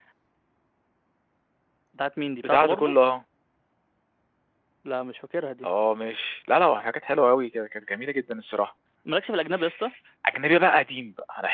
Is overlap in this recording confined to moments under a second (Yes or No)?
Yes